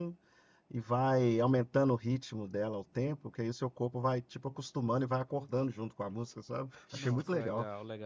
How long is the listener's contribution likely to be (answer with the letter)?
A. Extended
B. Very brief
A